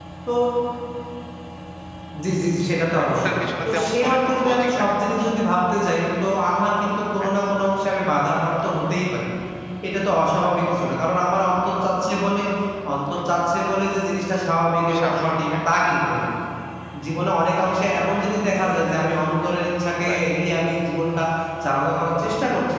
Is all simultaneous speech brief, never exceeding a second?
No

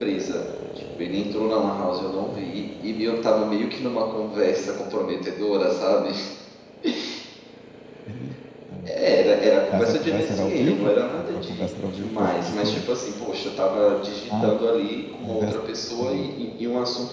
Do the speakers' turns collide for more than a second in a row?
Yes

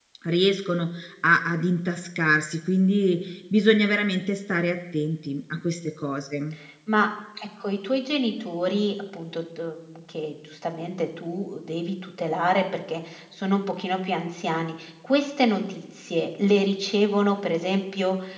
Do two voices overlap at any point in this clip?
No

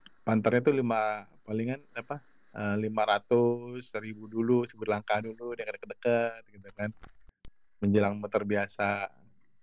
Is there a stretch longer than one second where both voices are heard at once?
No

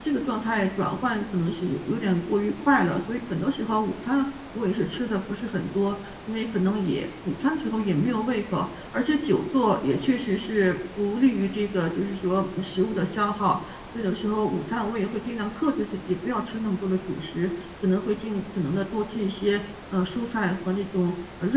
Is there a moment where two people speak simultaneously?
No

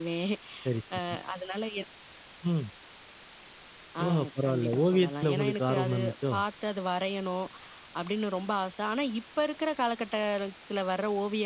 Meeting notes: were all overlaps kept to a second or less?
No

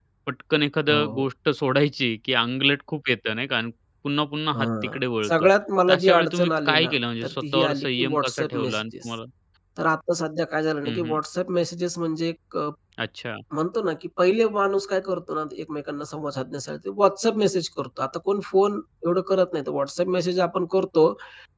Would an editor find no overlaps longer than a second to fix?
No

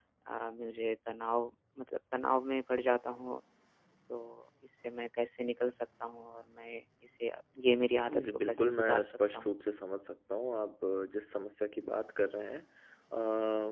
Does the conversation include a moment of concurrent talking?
Yes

